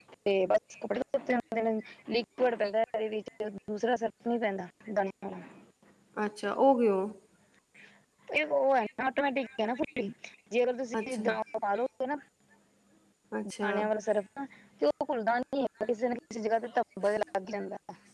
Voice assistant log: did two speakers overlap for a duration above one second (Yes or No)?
No